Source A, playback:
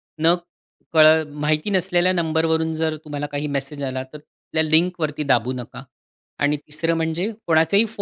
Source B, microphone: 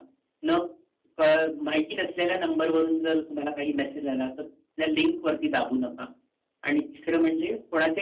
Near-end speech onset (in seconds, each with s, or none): none